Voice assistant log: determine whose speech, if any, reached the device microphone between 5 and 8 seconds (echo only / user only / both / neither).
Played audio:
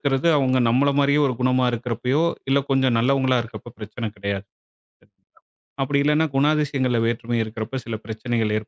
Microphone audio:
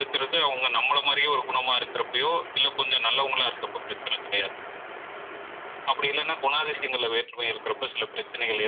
echo only